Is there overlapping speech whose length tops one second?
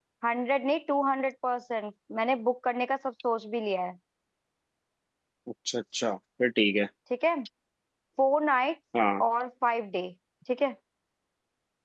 No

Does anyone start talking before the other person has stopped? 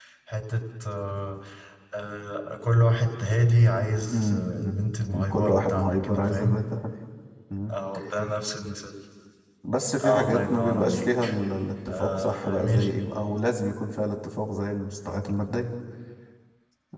Yes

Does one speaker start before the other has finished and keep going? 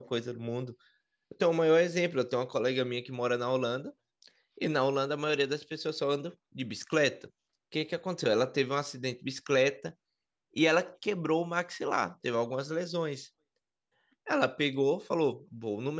No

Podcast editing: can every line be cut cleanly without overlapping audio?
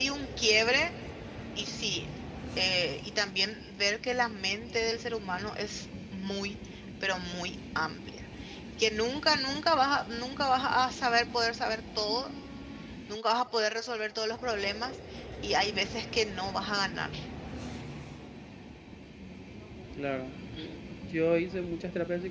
Yes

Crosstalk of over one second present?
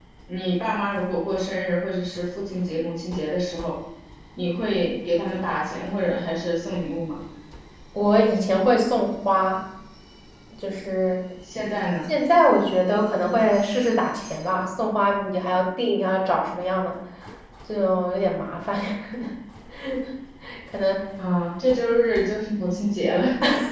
No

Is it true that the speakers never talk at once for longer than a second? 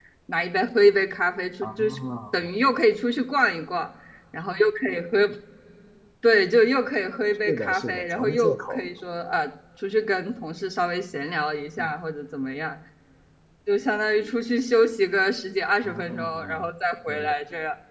No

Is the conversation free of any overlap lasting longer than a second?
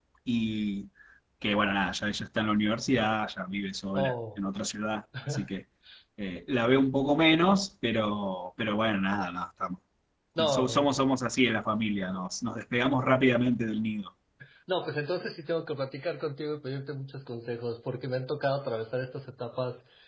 Yes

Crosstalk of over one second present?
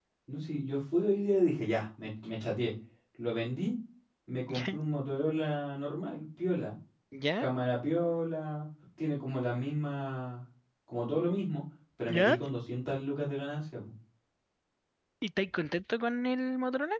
No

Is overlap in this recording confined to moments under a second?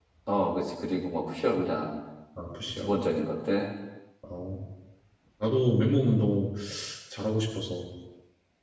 Yes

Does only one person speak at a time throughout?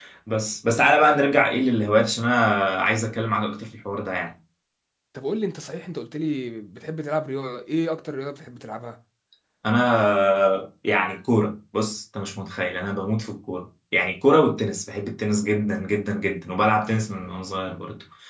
Yes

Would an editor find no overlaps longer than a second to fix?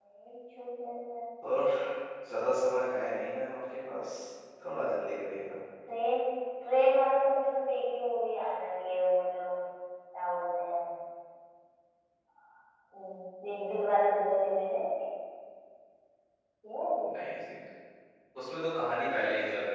Yes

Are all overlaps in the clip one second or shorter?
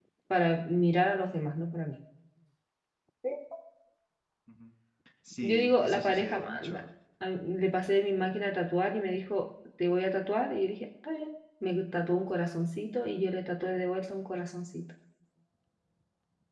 No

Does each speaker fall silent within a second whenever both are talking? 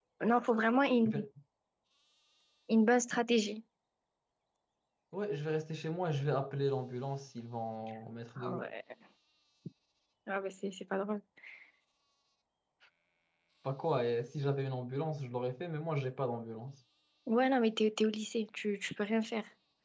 Yes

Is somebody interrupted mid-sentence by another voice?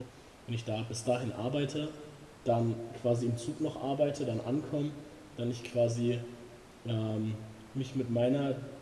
No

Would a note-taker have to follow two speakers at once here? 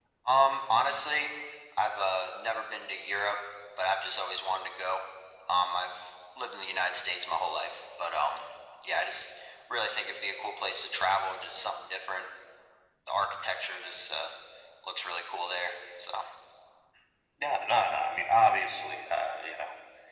No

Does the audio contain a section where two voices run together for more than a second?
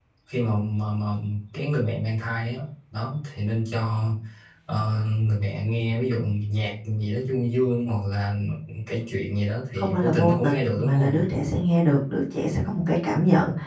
Yes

